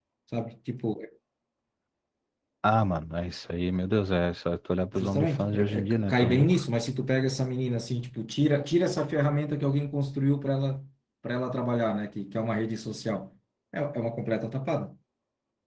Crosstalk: present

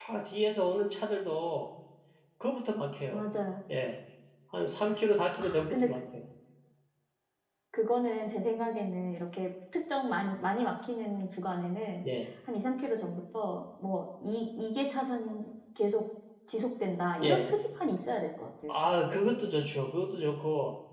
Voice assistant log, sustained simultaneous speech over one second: none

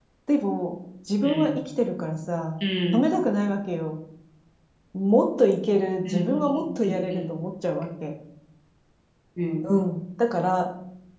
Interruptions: present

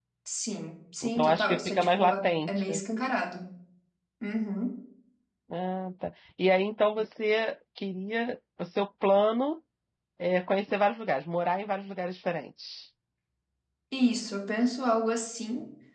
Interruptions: present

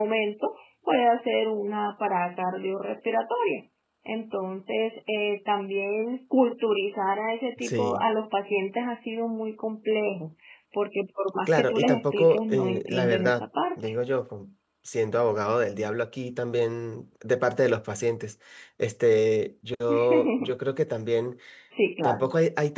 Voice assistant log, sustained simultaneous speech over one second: present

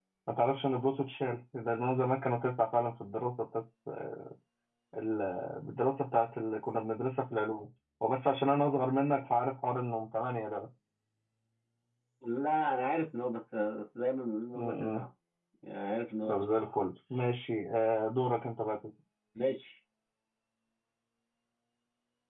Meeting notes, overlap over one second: none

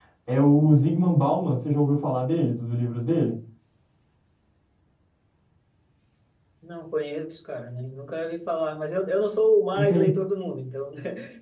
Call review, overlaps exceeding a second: none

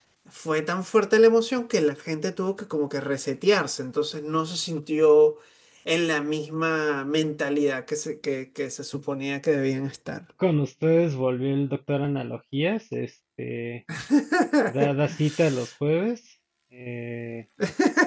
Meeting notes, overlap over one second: none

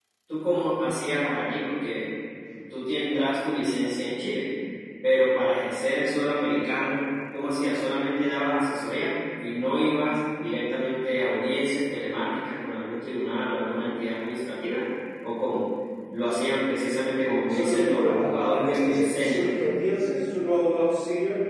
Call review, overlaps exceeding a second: present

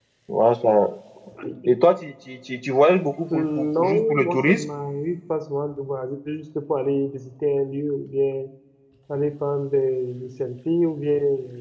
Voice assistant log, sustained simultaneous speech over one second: present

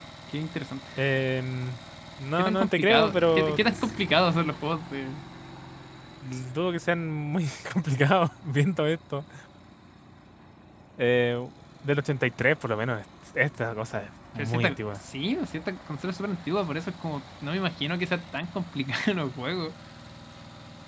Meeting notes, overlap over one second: present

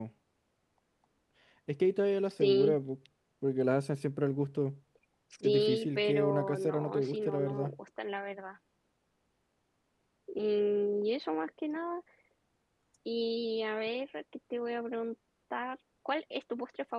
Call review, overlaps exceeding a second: present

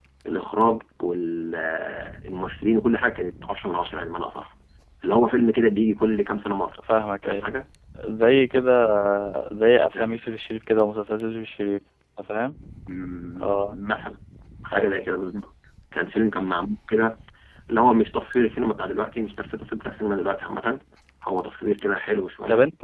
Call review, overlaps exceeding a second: none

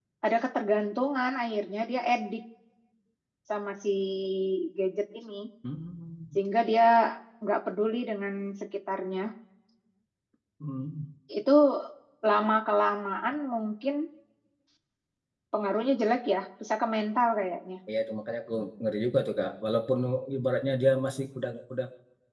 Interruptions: none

